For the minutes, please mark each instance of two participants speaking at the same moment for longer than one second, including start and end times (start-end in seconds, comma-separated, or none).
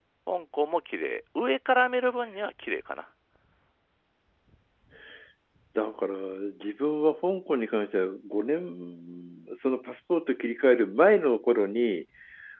none